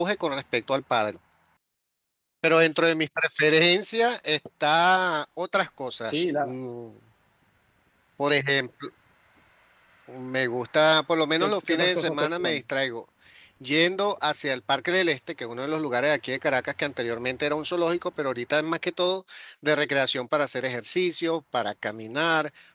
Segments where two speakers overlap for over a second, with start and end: 11.4-12.6

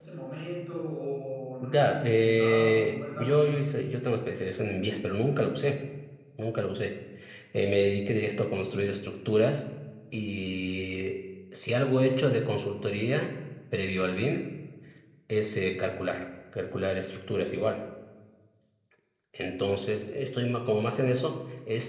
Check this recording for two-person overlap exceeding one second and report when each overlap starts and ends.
1.7-3.6

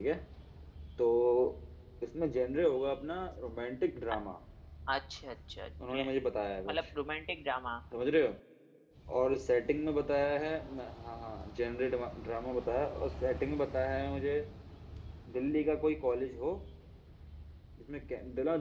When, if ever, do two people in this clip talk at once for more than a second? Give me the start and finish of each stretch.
none

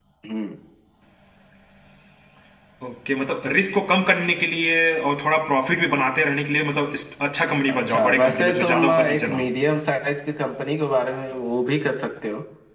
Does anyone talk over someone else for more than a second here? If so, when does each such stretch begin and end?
7.7-9.5

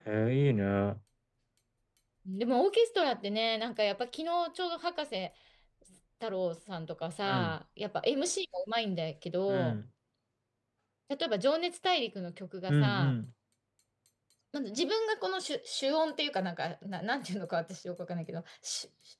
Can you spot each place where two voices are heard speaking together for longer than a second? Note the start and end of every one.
none

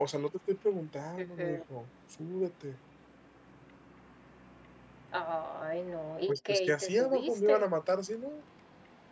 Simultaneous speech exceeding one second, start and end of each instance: 6.3-7.7

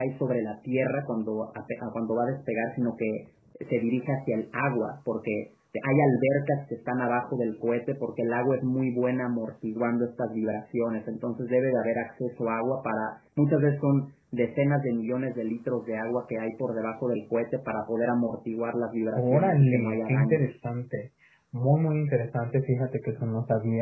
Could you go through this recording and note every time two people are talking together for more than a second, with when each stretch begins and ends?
19.1-20.5

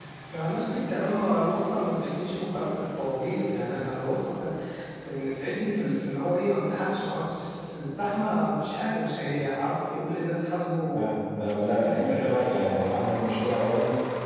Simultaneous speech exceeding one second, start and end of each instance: none

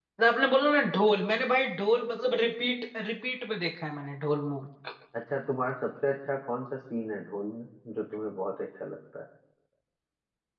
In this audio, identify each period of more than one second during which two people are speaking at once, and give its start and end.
none

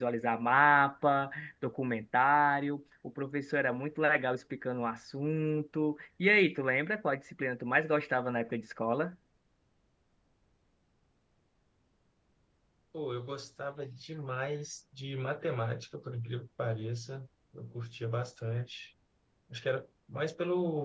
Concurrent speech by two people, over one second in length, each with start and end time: none

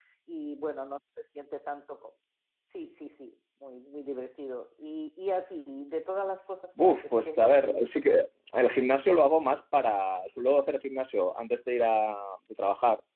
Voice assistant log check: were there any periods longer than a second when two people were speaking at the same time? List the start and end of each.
6.8-8.1

